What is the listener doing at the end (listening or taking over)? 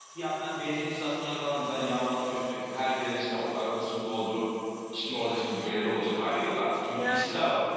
listening